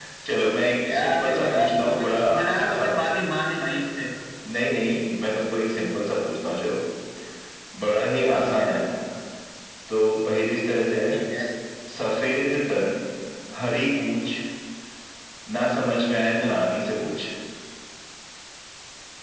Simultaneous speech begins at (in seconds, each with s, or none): 0.9 s